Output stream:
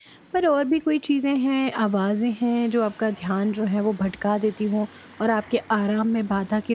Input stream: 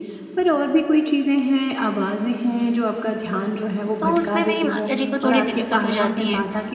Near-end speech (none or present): present